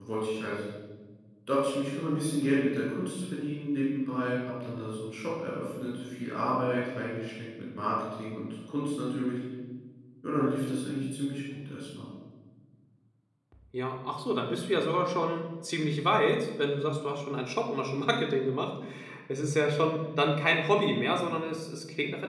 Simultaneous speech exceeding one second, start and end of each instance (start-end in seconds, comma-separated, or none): none